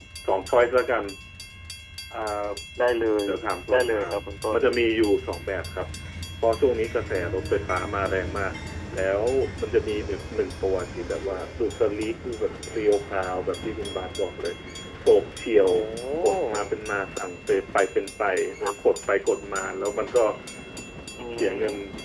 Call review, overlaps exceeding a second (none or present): none